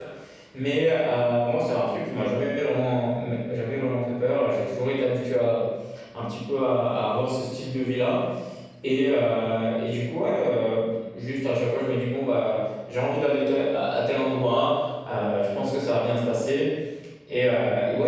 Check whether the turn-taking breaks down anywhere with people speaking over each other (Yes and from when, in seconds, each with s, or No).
No